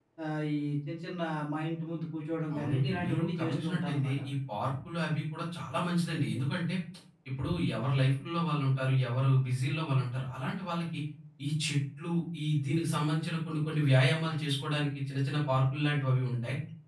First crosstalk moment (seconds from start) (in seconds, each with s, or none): 2.5 s